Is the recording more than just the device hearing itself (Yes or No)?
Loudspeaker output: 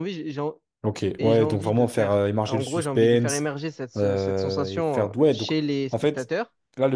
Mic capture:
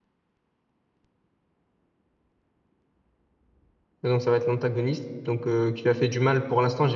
Yes